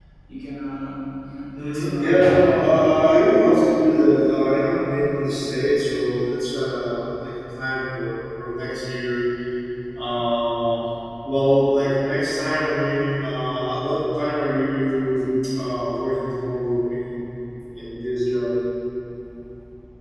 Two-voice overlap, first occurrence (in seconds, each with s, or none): 1.5 s